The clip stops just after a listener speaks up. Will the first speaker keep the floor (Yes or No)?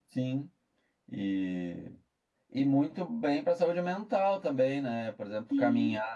Yes